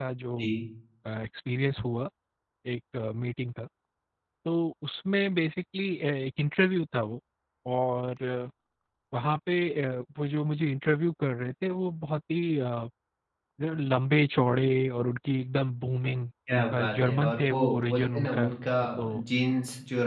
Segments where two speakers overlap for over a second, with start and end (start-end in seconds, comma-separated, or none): 16.5-18.5